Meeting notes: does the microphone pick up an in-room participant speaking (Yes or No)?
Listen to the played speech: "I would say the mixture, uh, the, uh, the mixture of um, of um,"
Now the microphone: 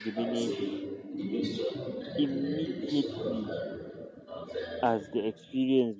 Yes